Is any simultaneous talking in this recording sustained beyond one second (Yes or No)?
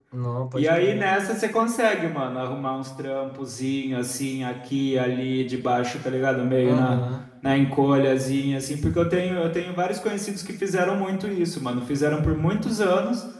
No